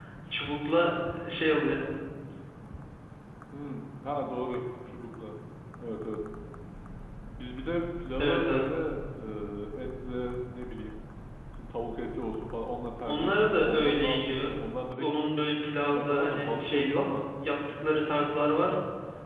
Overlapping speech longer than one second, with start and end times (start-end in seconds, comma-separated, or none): 13.1-14.6, 15.9-17.2